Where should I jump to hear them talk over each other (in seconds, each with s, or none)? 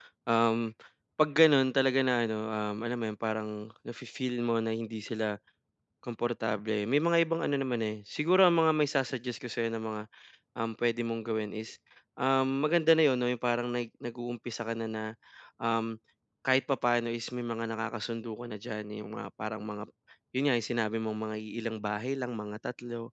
none